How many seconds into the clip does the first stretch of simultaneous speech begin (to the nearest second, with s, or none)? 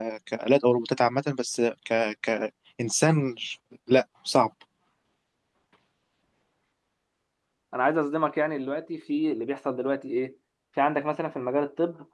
none